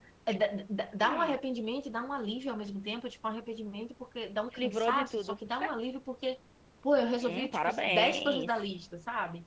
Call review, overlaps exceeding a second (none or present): present